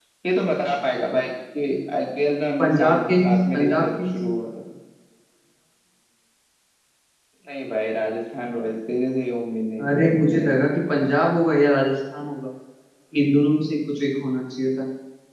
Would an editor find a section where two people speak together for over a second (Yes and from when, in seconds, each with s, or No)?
Yes, from 2.6 s